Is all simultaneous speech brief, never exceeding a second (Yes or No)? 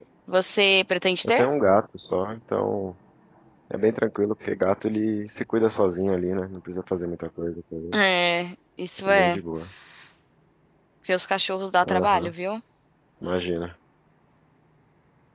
Yes